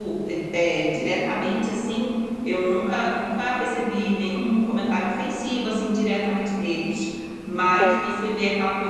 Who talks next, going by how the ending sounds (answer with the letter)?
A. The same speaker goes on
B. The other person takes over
A